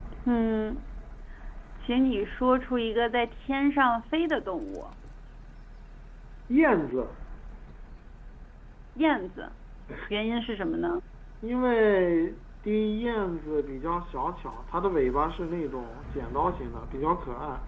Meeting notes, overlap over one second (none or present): none